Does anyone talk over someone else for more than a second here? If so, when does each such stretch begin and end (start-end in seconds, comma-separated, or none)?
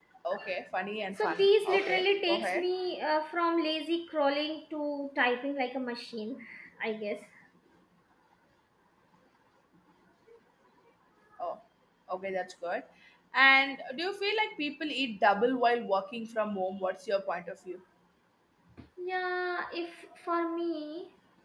1.2-2.6